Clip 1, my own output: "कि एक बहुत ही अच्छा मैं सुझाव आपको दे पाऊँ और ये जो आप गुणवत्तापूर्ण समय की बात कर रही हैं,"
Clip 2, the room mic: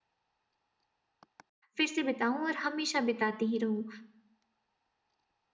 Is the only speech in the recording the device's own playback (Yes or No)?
No